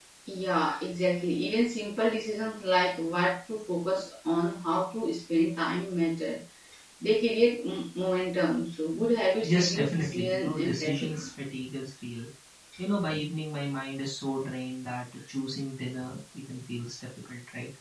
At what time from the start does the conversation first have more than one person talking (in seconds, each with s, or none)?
9.4 s